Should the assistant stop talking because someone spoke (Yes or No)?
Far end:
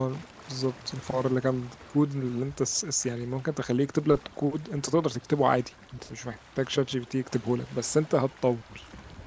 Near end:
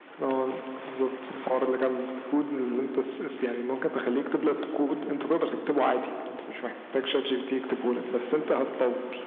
No